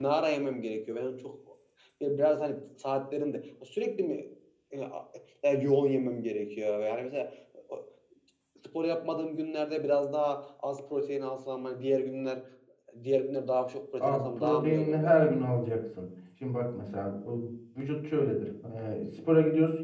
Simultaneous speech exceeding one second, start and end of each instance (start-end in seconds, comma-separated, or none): 14.0-15.3